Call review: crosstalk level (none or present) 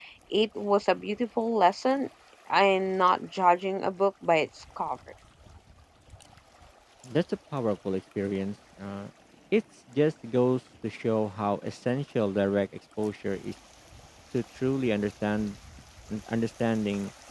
none